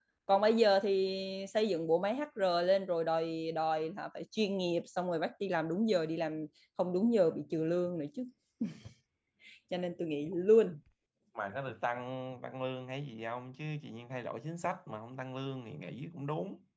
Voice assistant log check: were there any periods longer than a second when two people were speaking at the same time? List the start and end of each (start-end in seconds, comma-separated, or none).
none